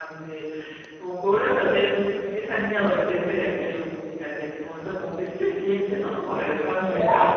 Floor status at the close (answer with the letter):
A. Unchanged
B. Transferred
B